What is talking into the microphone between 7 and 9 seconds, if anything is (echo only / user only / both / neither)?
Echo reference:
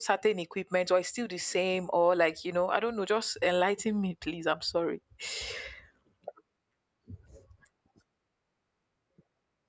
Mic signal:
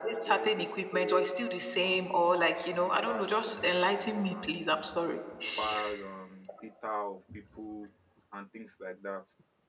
user only